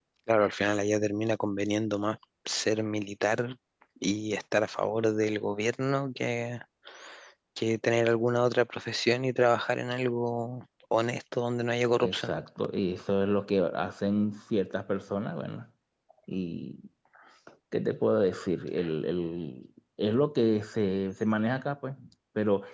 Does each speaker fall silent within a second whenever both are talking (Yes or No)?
Yes